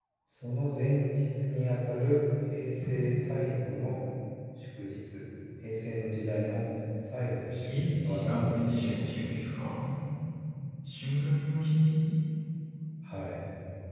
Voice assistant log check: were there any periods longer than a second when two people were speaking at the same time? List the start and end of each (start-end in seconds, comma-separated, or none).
7.8-9.0